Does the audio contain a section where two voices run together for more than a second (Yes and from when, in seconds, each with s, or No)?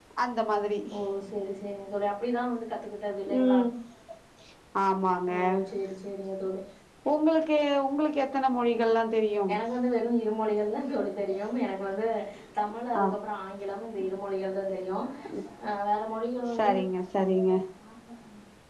No